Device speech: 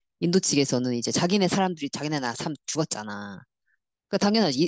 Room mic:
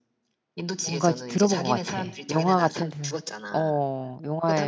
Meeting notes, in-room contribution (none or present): present